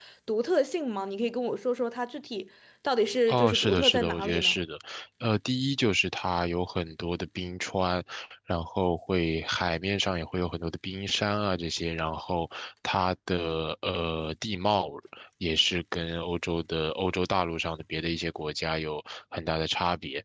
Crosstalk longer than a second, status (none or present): present